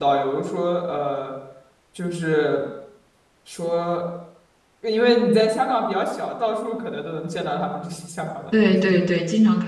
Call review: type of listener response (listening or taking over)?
taking over